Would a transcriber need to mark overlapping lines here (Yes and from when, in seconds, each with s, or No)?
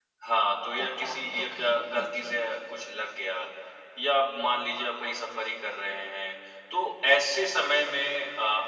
Yes, from 0.8 s